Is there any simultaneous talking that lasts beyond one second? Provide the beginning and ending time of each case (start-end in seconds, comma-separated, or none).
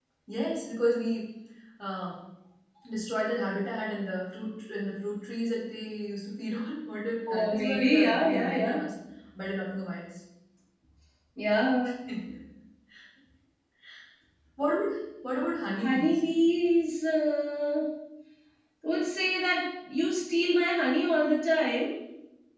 7.3-8.8